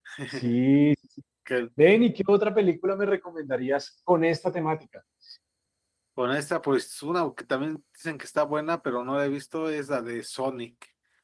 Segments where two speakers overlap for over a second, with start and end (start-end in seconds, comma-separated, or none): none